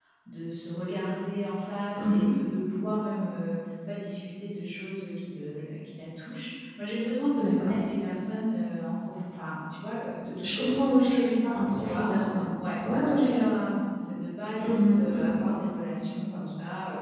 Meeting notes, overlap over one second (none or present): present